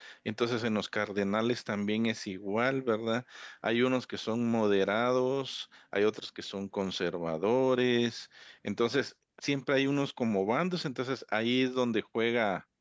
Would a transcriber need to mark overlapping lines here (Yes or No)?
No